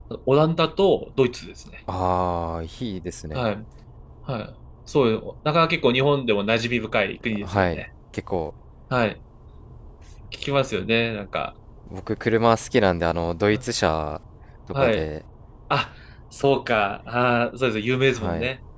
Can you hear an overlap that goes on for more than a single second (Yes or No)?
No